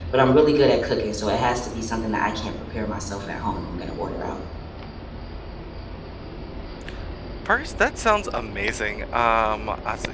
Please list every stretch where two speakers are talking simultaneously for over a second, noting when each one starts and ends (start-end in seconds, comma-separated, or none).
none